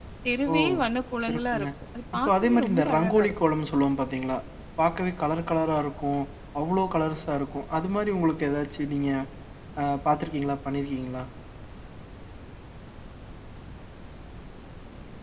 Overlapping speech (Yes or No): Yes